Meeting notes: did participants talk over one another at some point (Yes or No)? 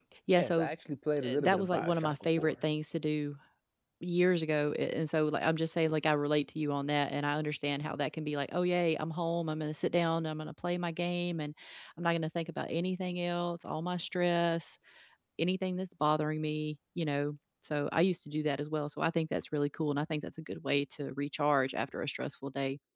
Yes